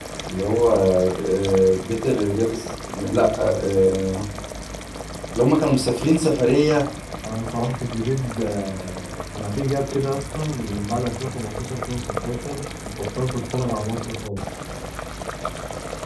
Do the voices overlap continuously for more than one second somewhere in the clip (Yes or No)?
No